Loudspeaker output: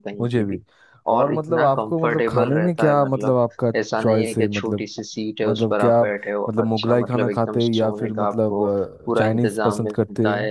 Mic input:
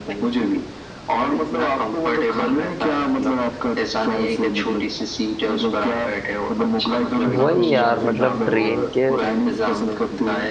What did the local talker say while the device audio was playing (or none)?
वही यार मतलब ट्रेन के